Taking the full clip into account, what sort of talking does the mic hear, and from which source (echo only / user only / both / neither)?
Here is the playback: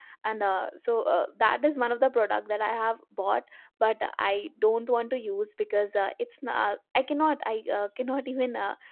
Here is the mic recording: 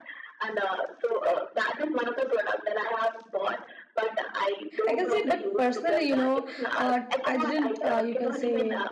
both